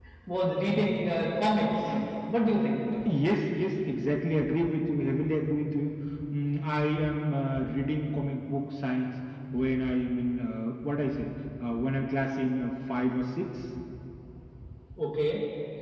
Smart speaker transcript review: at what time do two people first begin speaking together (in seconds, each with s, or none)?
none